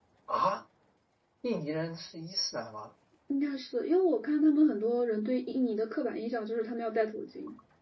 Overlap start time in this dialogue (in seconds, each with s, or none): none